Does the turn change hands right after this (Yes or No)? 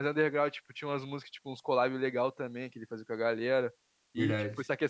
No